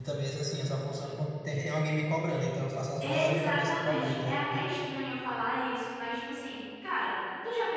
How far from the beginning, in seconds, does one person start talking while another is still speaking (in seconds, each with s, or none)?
3.0 s